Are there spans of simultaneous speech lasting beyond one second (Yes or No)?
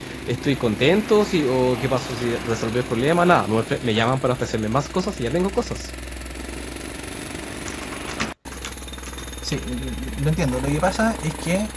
No